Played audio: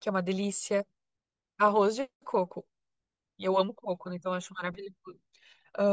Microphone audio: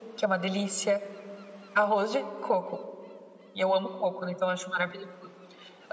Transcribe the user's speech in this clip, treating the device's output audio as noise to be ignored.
none

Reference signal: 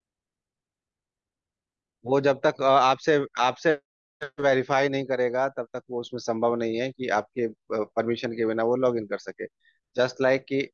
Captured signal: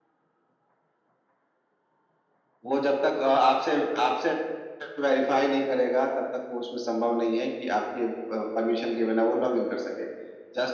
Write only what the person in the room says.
none

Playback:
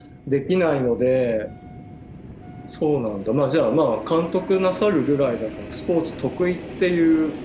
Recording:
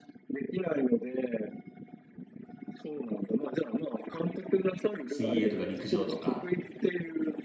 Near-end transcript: 水泳とか陸上とか。

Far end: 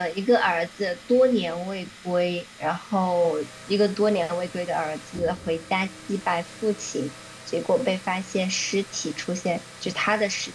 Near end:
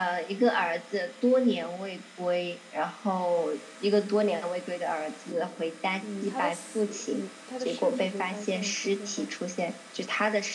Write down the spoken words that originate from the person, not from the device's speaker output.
嗯，他的死，嗯，他的尸体被发现出现在，

